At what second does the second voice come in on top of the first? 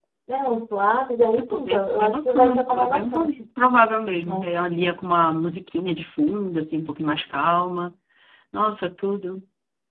1 s

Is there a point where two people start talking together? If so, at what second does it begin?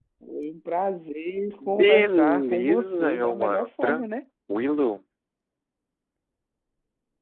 2 s

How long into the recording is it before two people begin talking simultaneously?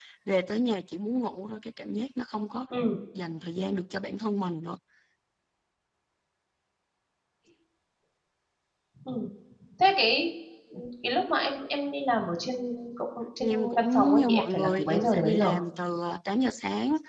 13 s

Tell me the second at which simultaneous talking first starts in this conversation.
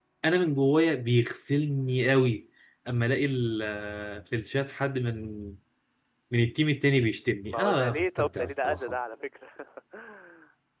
7 s

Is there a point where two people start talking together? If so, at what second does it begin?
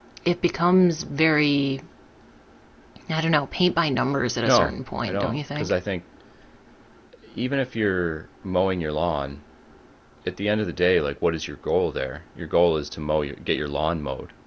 4 s

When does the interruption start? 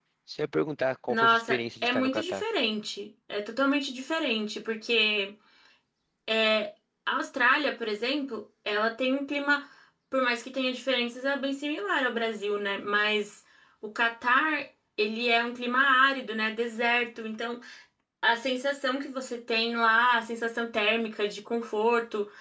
1 s

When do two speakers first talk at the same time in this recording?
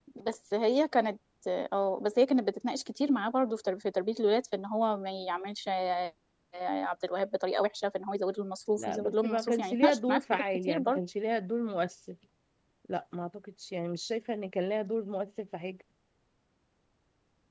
9 s

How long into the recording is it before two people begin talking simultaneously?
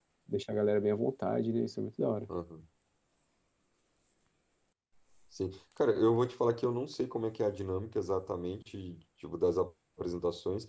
none

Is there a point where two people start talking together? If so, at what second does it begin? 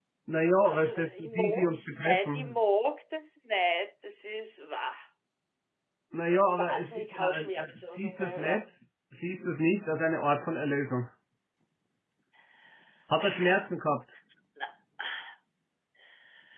1 s

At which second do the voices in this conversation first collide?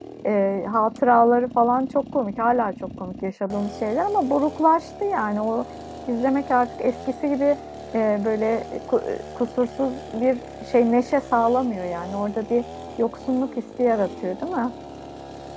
none

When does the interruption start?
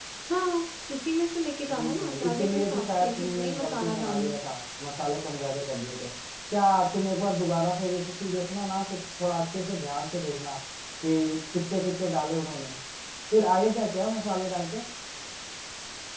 2 s

